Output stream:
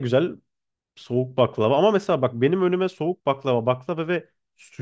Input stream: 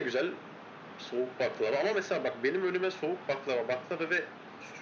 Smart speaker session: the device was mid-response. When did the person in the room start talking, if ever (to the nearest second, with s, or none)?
none